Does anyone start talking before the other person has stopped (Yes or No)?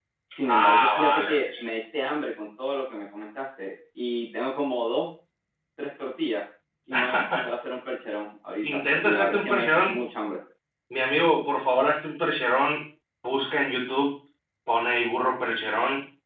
Yes